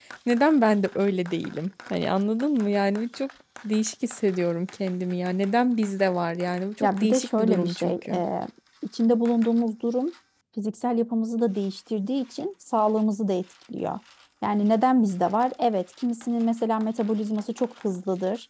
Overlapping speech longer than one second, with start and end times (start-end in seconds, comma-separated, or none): 6.8-8.2